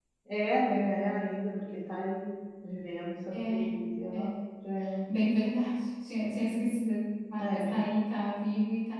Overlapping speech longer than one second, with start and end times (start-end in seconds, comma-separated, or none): none